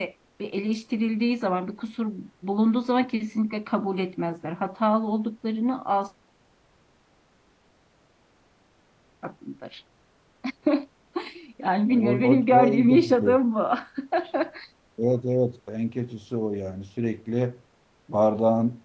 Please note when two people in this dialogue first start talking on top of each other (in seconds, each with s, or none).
11.9 s